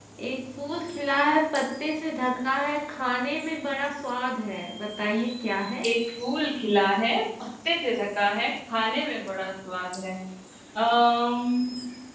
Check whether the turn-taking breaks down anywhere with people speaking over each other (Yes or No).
No